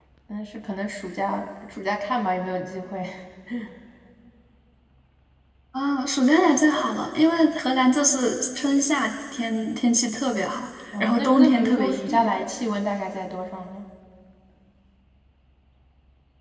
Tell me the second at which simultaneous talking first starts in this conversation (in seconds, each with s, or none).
10.9 s